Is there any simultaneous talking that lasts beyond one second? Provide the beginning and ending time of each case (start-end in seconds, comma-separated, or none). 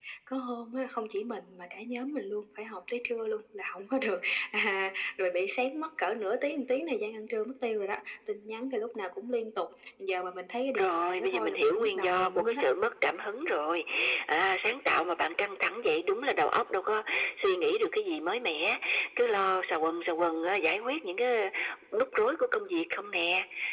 10.8-12.6